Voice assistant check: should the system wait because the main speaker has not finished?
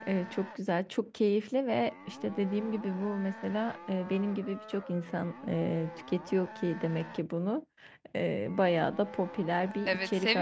No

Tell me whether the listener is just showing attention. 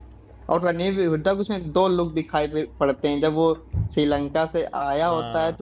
Yes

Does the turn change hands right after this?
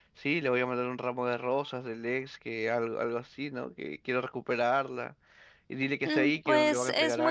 Yes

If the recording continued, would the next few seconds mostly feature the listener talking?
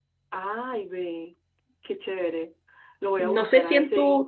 Yes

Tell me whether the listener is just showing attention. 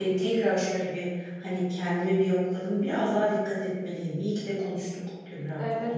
No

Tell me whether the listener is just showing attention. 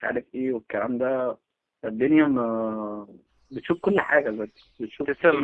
No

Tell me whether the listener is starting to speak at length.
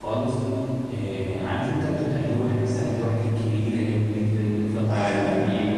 No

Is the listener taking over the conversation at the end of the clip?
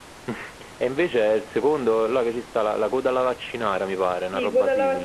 Yes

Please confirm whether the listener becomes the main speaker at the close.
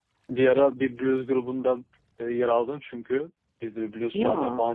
No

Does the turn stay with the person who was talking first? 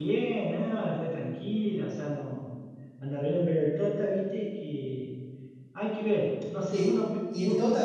No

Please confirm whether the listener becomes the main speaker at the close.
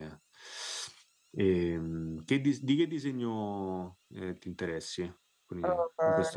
Yes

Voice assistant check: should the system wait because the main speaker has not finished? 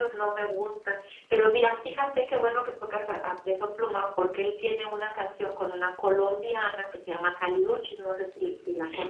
No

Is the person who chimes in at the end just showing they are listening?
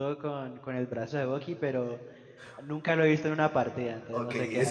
No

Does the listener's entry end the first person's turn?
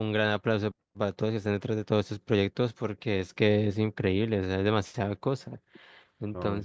No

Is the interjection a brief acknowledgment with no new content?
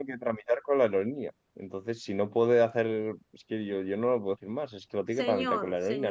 No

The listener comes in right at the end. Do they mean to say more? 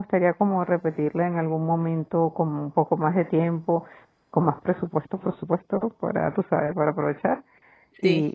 No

